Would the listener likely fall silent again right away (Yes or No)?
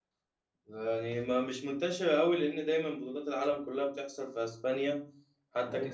Yes